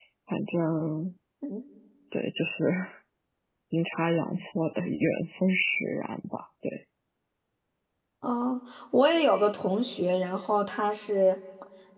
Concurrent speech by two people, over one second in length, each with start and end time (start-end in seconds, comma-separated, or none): none